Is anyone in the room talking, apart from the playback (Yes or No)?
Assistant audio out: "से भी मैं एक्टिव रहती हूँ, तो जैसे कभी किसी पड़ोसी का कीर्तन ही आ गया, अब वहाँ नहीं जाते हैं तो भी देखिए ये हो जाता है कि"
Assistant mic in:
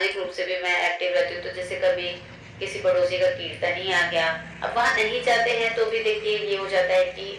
No